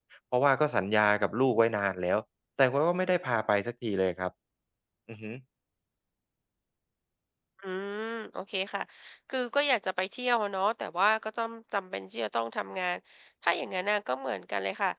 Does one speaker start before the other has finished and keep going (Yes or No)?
No